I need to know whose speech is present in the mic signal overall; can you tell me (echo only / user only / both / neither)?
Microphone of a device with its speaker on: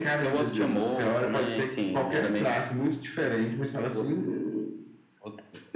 echo only